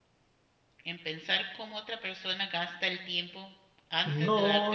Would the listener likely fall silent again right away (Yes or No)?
No